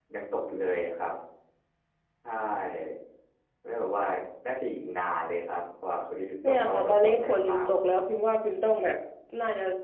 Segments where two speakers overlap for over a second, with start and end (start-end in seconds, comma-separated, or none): 6.5-7.7